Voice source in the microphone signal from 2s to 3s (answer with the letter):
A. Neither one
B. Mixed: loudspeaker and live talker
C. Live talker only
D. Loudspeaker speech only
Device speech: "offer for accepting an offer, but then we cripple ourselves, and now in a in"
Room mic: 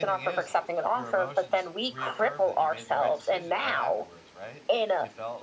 B